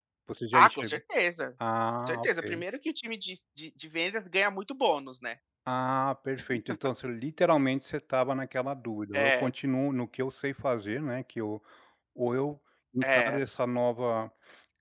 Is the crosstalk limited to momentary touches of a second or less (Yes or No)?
Yes